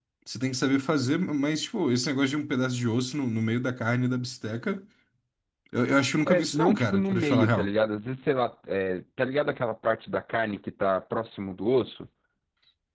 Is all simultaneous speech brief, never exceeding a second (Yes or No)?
No